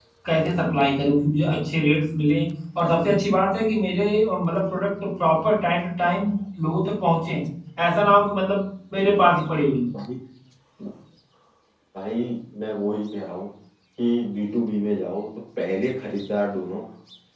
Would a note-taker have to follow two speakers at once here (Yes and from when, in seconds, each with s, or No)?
No